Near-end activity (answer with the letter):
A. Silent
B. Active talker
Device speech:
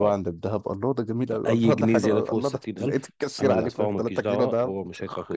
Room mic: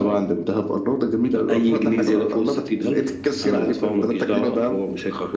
A